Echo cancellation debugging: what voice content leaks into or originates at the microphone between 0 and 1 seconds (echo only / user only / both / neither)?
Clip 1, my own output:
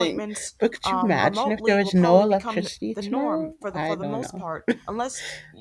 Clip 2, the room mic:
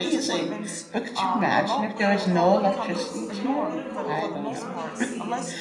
both